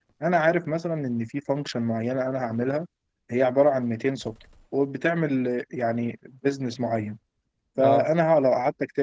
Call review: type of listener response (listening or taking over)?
listening